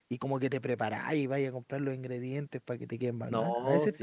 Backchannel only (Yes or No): No